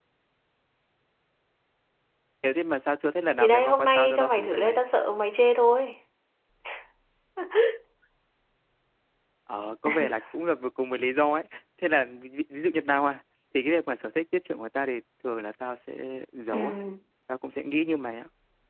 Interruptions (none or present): present